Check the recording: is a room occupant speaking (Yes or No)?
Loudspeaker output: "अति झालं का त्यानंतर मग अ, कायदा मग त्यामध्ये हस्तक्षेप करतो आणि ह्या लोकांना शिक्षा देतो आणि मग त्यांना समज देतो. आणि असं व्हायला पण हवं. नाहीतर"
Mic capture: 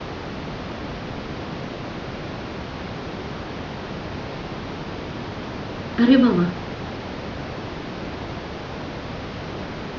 Yes